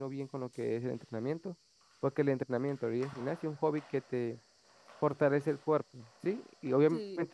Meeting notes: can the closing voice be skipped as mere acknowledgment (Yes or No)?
Yes